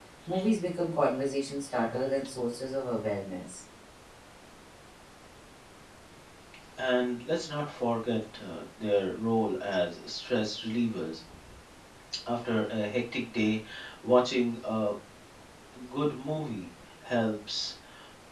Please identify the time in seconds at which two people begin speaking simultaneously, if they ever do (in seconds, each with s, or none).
none